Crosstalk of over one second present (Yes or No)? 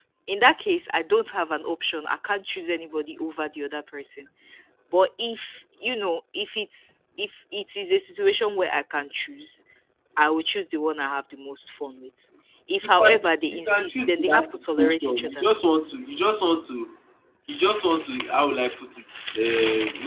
Yes